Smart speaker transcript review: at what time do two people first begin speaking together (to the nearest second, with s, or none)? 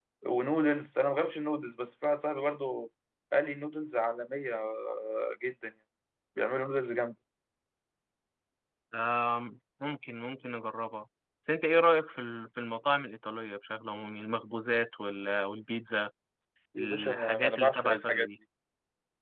17 s